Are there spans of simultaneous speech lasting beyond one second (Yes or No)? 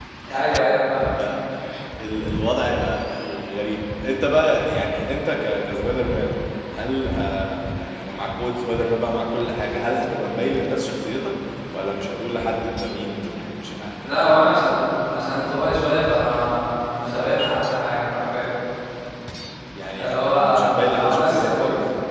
Yes